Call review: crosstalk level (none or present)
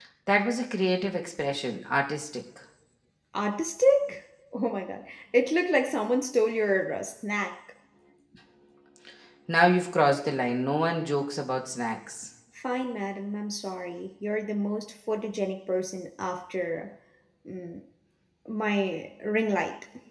none